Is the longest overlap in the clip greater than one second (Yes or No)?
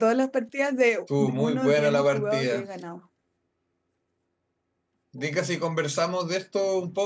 Yes